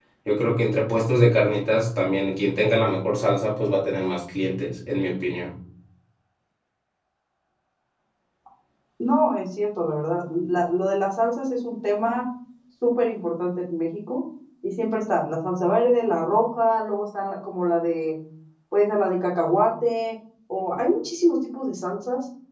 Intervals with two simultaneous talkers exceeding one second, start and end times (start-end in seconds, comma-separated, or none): none